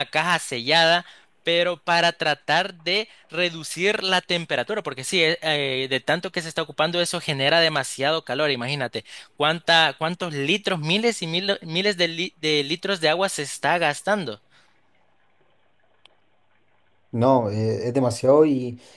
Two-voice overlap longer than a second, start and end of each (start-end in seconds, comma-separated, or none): none